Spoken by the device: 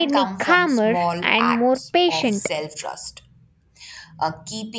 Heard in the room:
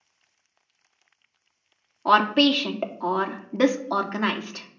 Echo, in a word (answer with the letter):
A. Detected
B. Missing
B